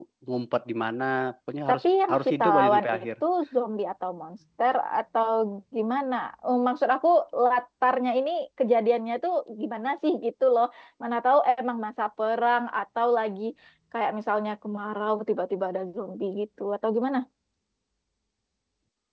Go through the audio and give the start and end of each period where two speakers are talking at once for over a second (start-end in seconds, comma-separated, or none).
1.7-3.1